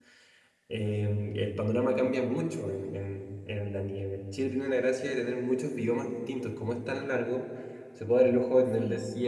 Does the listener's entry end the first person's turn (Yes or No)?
No